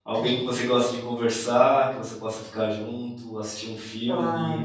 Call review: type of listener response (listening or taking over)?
listening